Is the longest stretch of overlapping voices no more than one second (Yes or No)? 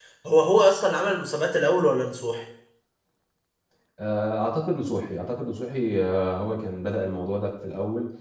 Yes